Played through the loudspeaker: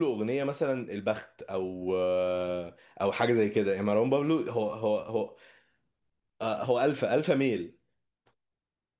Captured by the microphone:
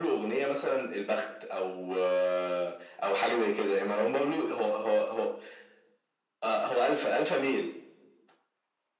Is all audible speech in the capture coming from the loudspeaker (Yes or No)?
Yes